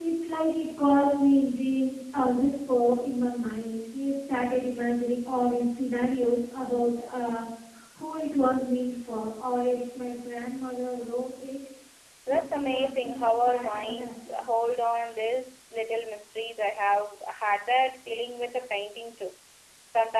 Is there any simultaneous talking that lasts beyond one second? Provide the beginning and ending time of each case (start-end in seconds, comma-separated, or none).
12.3-14.4